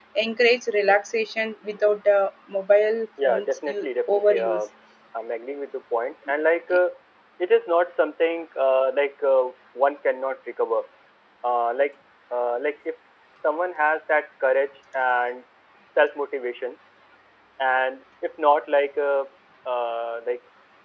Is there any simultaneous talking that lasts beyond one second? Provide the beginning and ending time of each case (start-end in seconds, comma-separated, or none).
3.2-4.7